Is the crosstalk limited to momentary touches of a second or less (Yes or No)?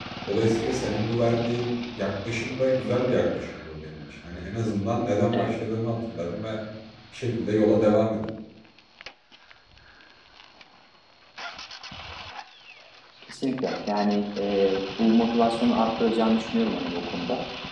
Yes